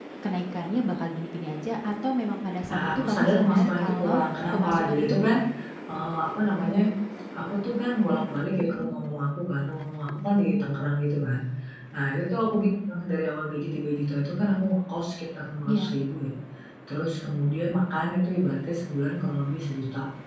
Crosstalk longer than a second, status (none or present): present